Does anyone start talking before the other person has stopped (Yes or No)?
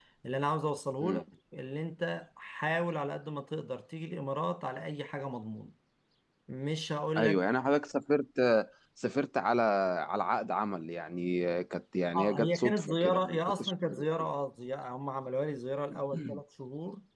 Yes